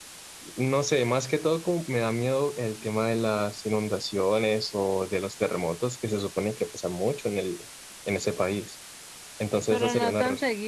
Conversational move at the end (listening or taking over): taking over